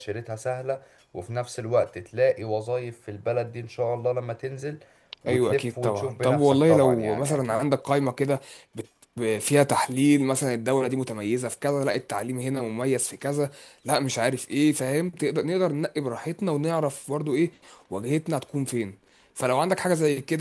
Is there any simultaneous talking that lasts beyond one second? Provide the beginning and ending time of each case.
5.3-7.6

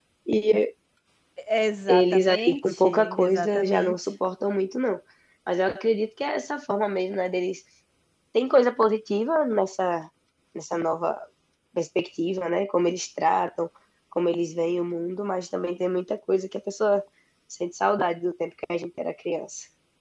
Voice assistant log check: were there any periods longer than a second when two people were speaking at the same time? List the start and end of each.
1.9-3.9

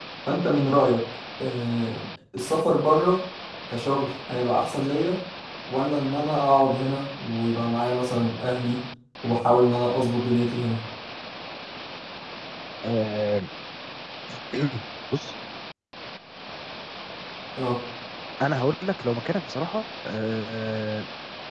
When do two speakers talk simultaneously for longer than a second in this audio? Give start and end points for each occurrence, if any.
none

